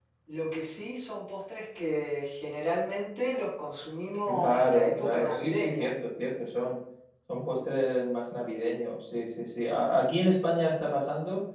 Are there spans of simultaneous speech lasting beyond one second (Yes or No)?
Yes